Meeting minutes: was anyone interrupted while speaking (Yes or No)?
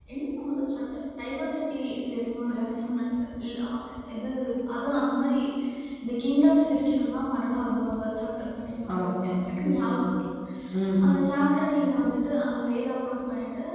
Yes